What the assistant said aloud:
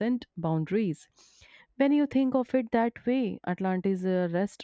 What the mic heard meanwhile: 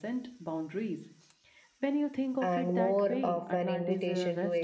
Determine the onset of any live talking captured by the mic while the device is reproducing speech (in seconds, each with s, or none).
2.4 s